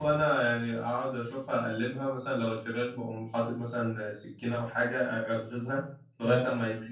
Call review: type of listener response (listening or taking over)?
listening